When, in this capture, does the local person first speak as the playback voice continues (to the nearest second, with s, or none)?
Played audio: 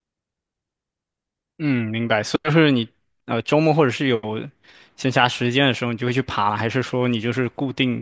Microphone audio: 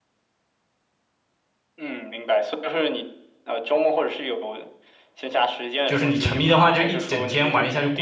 6 s